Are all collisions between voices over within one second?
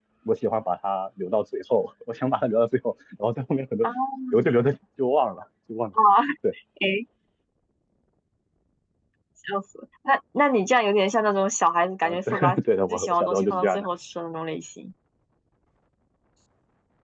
No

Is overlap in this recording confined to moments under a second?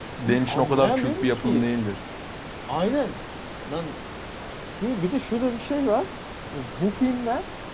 No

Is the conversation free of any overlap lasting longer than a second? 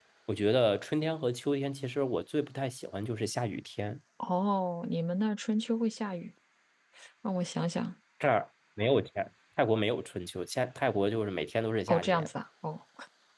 Yes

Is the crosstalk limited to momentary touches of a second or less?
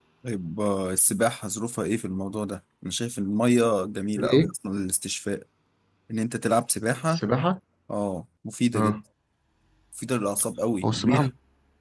Yes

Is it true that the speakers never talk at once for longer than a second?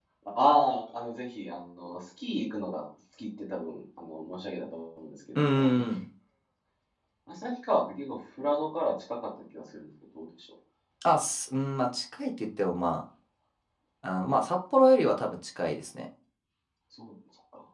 Yes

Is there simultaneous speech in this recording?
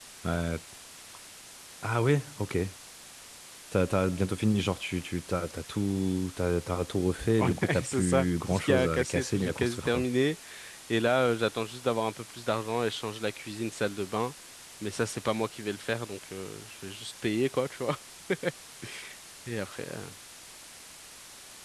Yes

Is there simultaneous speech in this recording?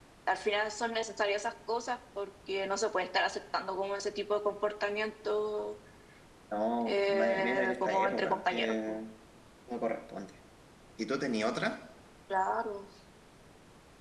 Yes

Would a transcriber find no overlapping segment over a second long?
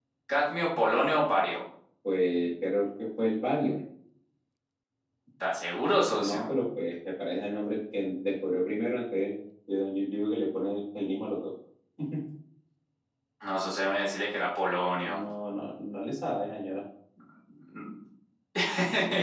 Yes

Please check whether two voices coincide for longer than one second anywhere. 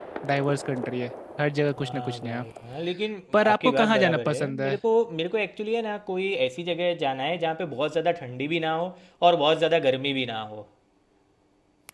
Yes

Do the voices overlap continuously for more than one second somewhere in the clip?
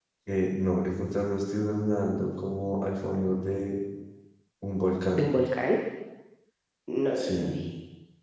No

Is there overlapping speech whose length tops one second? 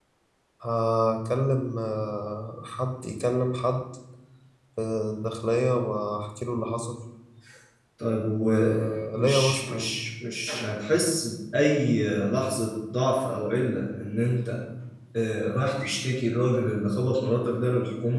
Yes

